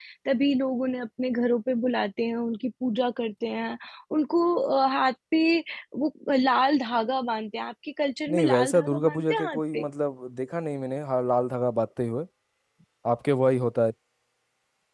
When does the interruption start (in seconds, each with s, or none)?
8.3 s